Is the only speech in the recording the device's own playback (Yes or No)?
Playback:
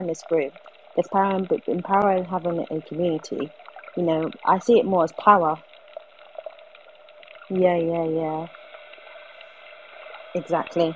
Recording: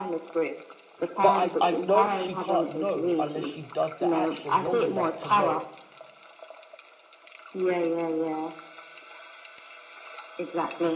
No